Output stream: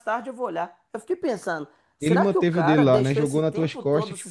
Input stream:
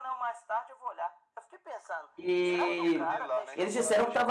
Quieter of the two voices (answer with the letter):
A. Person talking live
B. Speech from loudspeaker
B